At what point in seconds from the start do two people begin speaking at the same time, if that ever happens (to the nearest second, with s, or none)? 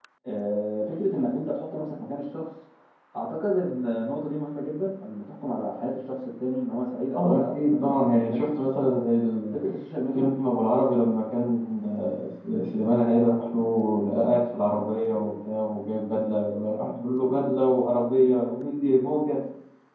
7 s